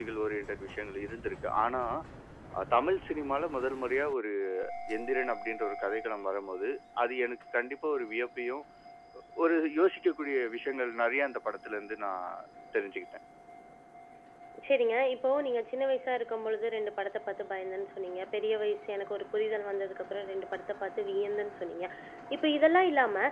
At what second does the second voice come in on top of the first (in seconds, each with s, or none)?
none